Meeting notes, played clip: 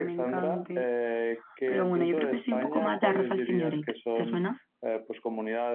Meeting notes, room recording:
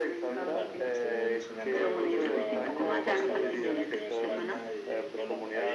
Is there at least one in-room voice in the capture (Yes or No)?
Yes